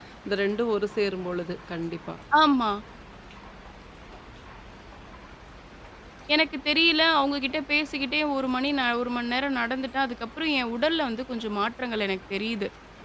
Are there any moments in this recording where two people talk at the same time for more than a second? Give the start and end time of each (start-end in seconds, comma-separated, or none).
none